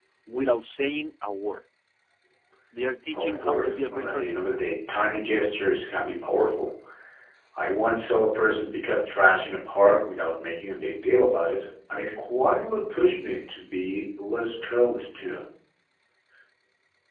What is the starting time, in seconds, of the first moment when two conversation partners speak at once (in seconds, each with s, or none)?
3.1 s